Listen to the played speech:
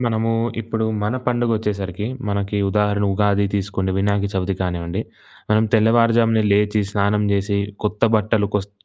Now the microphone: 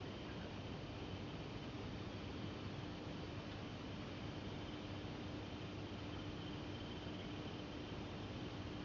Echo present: No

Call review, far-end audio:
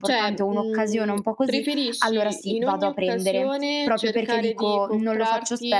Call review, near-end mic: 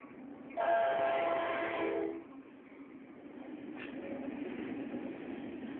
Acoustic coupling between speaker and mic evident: No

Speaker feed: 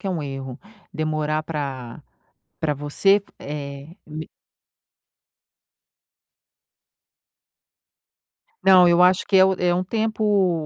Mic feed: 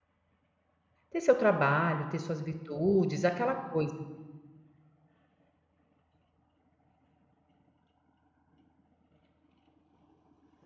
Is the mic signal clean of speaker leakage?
Yes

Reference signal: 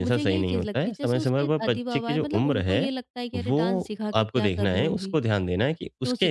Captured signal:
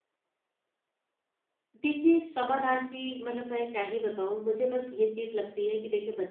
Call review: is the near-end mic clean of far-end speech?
Yes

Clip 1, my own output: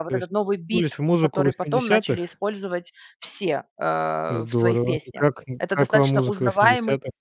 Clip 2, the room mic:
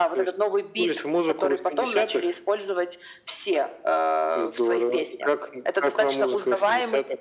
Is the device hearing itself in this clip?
Yes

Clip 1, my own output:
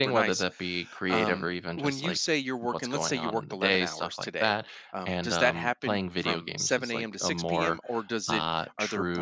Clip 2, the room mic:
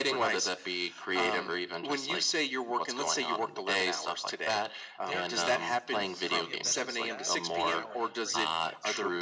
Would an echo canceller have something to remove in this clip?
Yes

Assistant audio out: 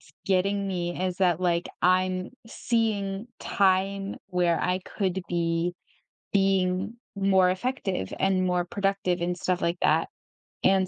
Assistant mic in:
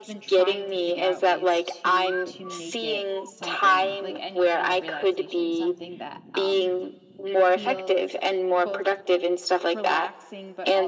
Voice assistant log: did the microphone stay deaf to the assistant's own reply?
No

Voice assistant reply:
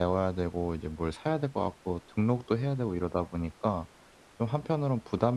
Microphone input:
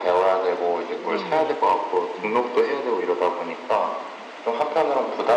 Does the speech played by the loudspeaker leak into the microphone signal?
Yes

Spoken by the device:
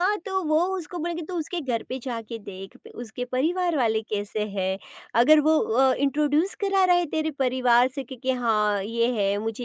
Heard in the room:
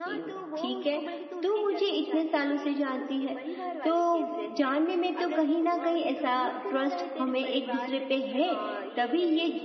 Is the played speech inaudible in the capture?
No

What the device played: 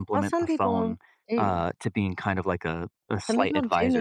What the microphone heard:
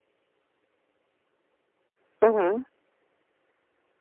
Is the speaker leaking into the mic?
No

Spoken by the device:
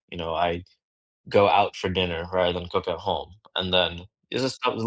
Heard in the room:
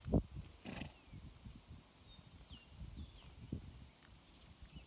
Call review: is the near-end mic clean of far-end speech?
Yes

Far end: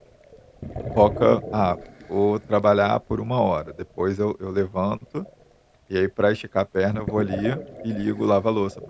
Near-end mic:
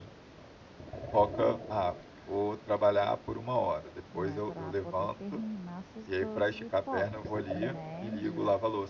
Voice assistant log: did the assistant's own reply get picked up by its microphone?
Yes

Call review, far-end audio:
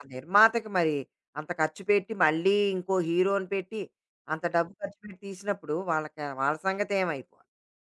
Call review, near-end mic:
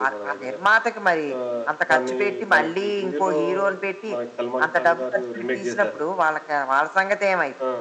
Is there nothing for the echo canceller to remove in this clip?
No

